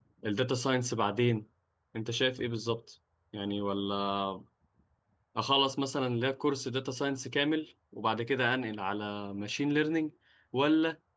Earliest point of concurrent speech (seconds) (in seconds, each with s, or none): none